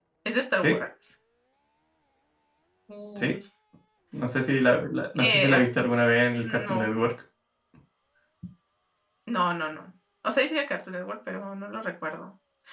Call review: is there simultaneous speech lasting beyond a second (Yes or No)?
No